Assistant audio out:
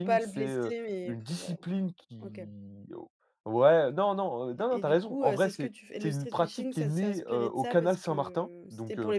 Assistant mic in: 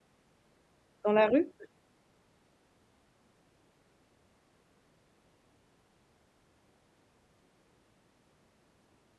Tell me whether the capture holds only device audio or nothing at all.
No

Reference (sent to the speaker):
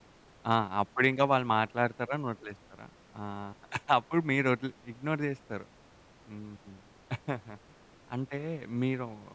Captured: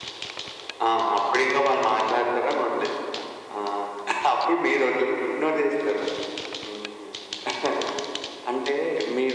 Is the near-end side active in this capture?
No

